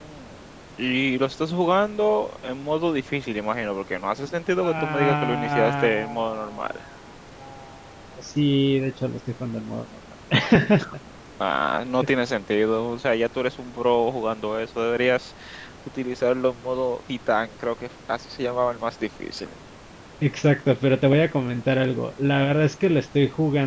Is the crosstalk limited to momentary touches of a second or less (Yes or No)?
No